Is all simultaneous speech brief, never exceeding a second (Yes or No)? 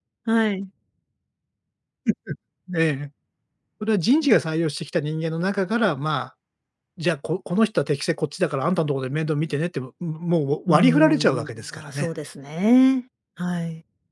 No